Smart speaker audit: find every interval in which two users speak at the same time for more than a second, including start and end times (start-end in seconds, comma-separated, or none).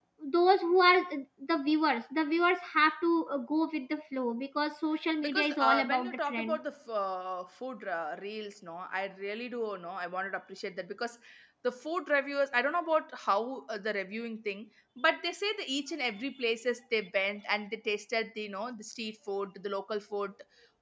5.2-6.6